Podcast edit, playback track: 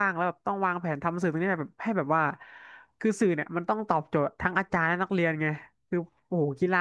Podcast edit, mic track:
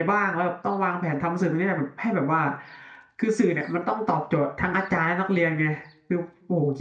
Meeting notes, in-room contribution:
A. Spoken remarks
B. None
B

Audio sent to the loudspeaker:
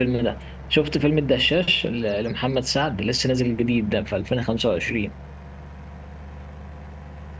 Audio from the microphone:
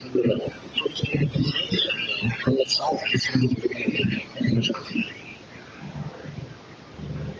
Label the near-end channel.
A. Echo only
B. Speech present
A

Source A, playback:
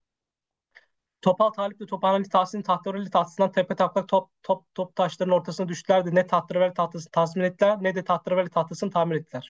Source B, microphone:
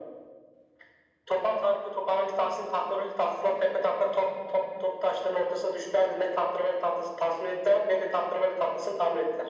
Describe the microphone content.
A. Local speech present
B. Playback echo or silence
B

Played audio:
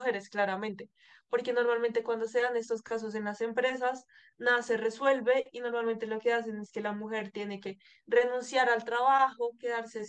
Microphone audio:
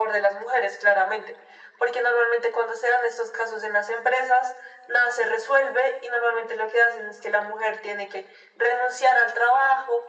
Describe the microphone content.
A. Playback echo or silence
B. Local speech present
A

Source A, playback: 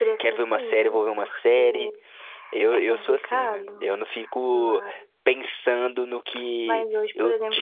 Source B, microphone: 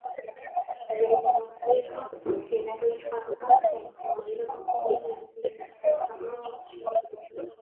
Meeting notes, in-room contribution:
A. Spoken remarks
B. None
A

